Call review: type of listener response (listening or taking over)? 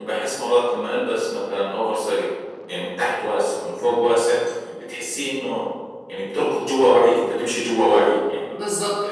taking over